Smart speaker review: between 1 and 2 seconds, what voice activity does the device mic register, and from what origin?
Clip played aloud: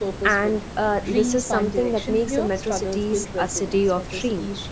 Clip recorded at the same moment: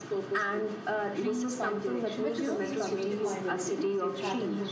echo only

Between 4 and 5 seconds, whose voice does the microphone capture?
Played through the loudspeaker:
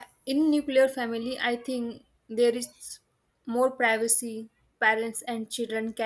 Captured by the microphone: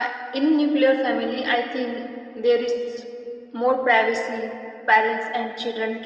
echo only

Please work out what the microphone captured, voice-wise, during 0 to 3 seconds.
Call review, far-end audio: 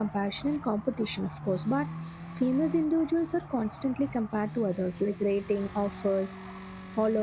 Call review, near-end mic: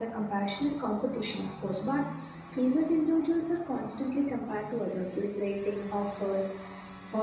echo only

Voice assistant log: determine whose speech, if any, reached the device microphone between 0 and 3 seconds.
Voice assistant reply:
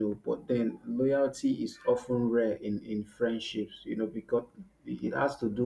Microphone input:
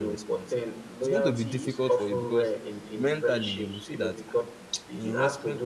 both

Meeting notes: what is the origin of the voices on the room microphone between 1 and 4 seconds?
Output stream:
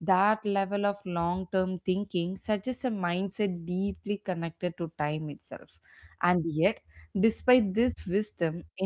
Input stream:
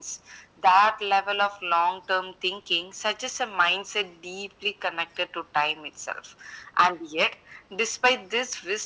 echo only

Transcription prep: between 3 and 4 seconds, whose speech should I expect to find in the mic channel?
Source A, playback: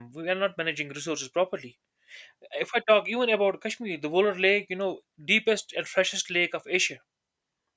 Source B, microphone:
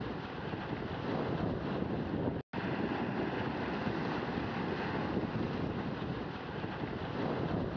neither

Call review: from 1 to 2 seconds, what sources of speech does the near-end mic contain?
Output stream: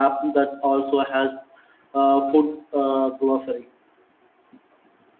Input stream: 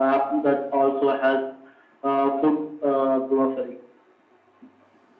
echo only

